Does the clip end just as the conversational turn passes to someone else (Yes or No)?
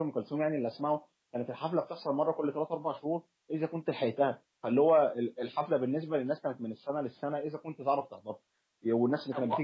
No